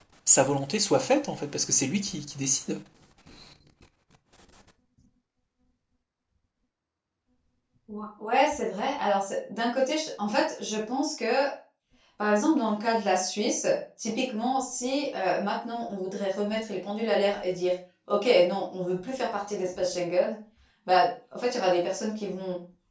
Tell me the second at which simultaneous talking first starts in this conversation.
none

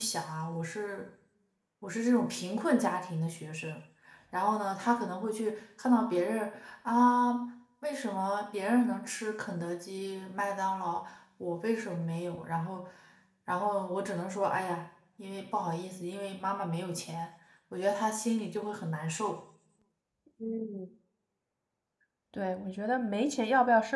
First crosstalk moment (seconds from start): none

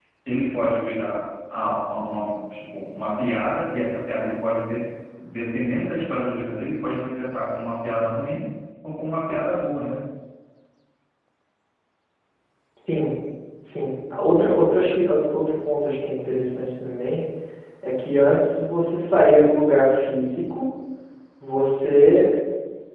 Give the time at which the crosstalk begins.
none

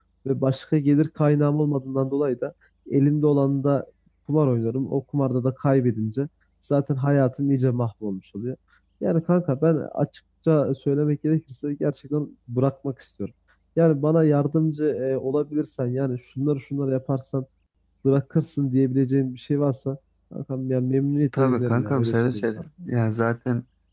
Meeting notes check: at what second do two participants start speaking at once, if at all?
21 s

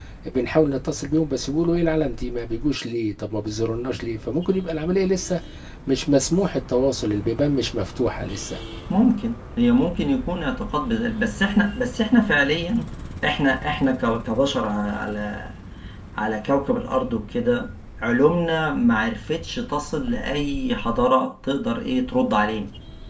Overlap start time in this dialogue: none

